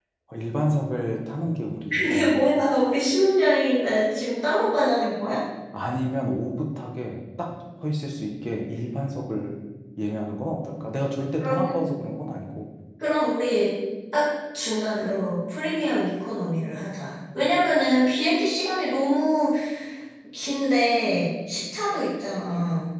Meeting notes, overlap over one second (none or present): none